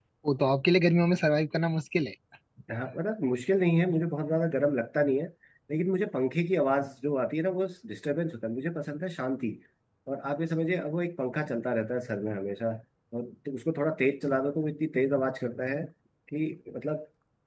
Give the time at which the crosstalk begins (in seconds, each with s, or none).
none